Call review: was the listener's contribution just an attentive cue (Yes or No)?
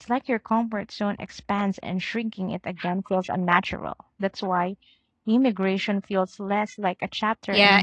No